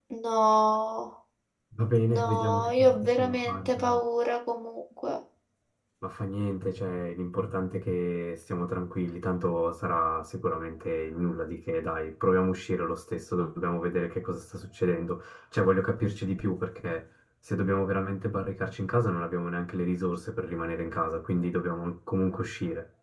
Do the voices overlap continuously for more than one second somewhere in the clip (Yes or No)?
Yes